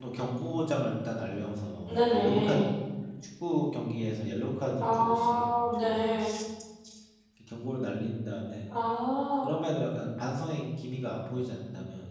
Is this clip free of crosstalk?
No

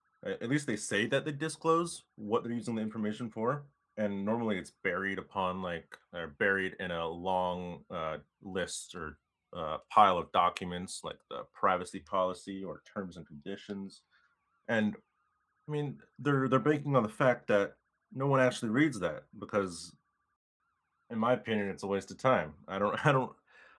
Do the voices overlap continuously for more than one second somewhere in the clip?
No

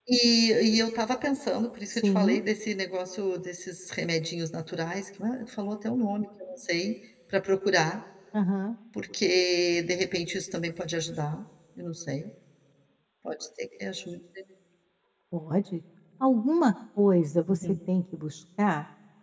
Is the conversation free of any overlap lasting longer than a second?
Yes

